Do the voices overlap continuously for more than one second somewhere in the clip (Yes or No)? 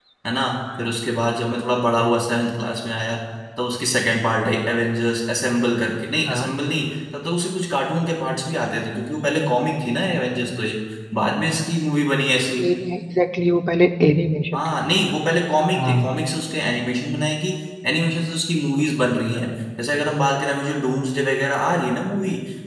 No